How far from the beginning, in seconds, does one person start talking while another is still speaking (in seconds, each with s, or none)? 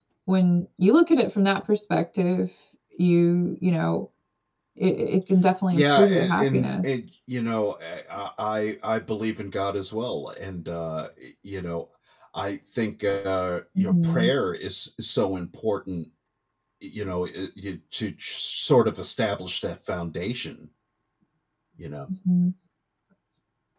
5.7 s